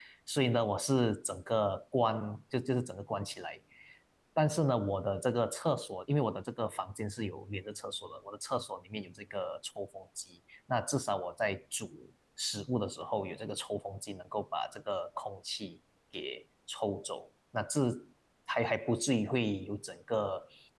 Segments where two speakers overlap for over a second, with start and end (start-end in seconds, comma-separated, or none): none